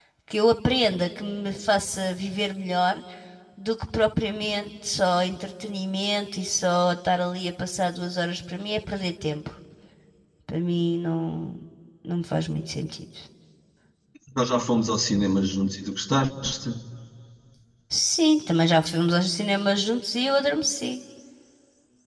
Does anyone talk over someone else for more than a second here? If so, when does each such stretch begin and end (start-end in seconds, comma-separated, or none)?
none